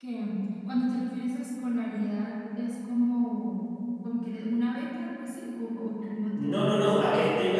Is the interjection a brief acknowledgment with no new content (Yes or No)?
No